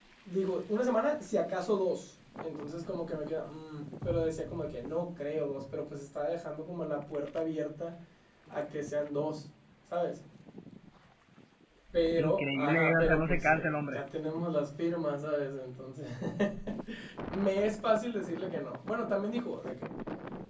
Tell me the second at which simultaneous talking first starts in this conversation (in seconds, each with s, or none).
12.2 s